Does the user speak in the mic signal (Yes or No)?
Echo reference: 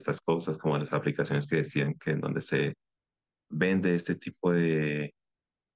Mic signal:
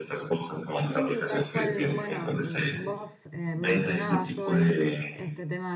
Yes